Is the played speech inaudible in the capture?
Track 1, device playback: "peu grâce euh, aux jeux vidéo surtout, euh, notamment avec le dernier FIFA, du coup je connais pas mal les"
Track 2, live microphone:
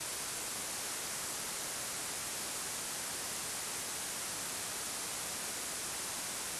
Yes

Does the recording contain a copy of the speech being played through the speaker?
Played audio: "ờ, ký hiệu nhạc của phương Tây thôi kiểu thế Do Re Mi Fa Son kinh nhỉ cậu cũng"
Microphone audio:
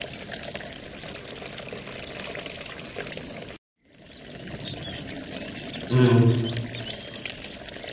No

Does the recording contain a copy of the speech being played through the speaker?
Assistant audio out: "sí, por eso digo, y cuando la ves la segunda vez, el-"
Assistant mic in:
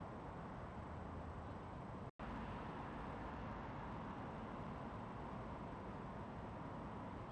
No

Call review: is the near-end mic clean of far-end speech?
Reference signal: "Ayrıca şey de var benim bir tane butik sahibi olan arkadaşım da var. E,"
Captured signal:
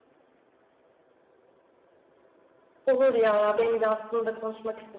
Yes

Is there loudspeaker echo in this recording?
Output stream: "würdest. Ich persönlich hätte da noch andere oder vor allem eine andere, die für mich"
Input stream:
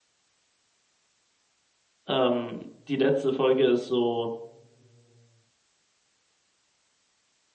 No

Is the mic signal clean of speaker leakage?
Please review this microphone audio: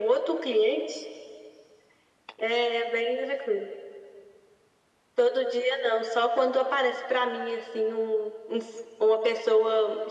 No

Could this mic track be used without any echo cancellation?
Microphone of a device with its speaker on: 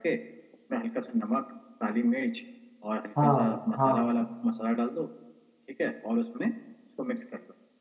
No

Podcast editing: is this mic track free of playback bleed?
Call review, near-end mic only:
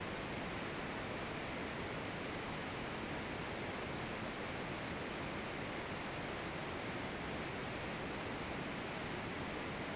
Yes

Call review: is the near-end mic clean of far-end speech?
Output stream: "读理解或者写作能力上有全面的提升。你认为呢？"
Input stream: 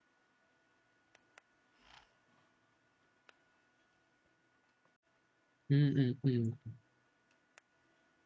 Yes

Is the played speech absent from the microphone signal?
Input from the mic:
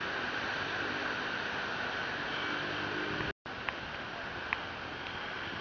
Yes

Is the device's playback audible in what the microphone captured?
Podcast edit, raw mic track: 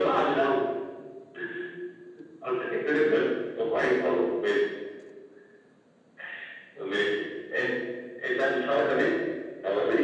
Yes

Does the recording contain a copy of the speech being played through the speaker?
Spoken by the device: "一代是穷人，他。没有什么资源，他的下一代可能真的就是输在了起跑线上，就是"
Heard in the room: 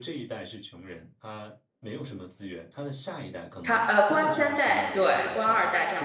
Yes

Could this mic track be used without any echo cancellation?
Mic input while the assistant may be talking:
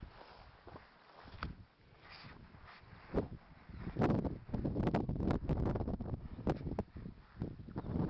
Yes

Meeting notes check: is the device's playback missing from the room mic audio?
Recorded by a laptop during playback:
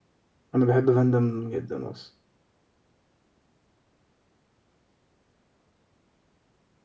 Yes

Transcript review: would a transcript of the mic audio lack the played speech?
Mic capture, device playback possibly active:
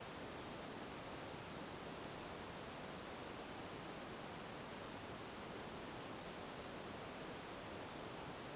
Yes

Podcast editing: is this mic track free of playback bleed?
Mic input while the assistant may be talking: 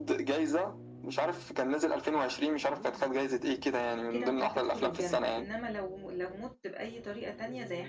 No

